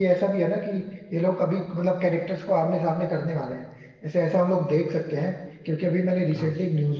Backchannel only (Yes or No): Yes